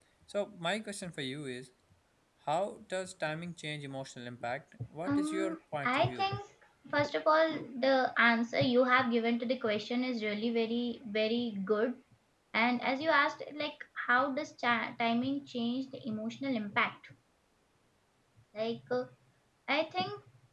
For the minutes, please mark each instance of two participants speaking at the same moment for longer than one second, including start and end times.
5.1-6.3

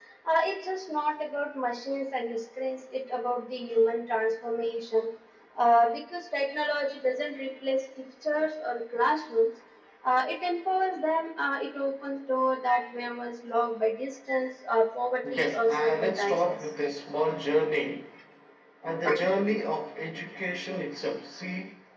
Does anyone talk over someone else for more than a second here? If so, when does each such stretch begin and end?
15.3-16.7

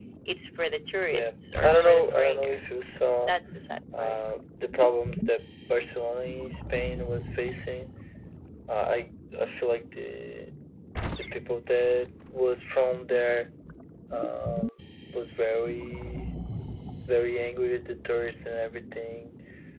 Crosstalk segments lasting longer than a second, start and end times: 1.1-2.7

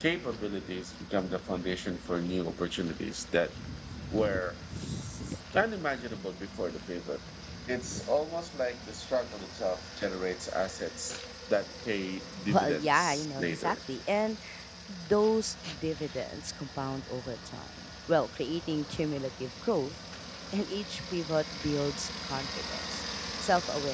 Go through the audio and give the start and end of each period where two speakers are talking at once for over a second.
12.5-13.8

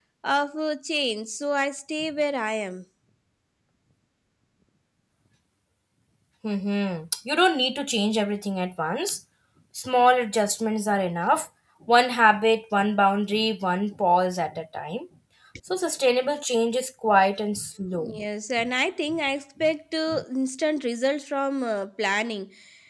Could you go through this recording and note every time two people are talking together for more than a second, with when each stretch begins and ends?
none

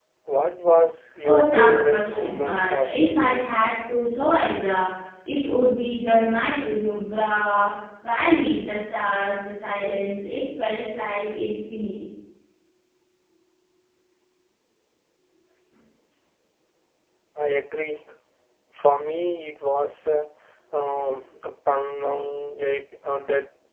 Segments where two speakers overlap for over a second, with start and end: 1.2-3.5

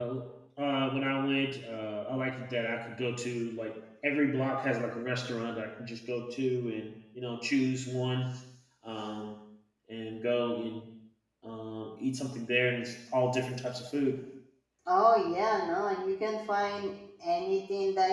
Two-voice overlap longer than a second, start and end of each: none

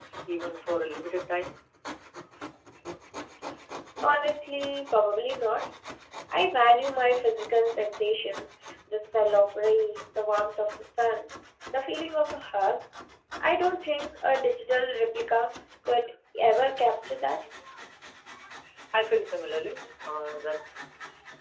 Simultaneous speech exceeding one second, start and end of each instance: none

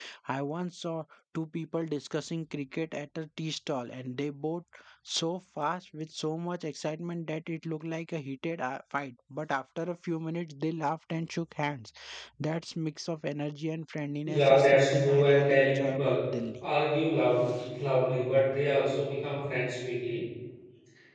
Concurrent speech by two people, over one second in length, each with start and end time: 14.3-16.3

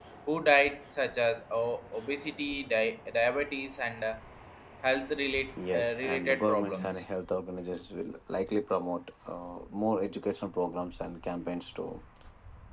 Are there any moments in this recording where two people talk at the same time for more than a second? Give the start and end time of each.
5.7-7.0

